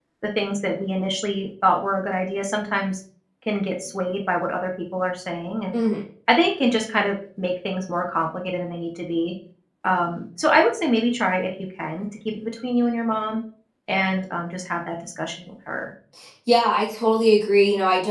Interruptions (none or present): none